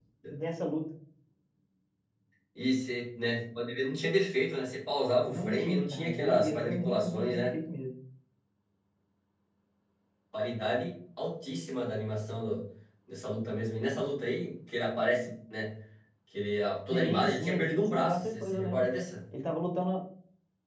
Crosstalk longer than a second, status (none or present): present